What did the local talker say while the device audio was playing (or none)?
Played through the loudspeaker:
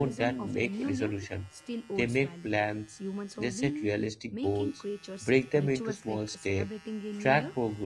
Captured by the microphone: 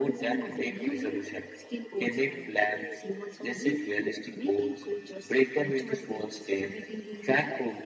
none